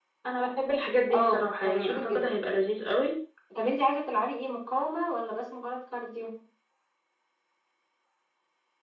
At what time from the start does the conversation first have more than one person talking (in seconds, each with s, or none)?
1.1 s